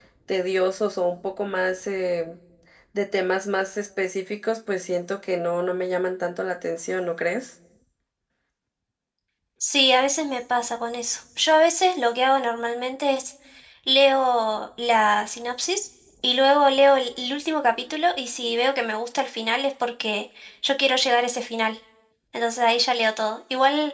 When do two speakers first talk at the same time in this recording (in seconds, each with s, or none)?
none